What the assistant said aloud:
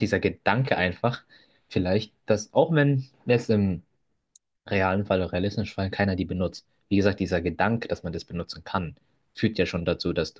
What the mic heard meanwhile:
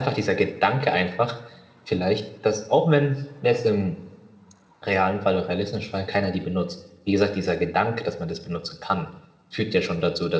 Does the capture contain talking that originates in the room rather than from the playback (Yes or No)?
No